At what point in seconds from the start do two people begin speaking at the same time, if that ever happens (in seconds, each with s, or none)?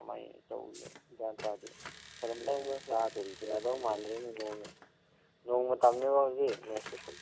2.3 s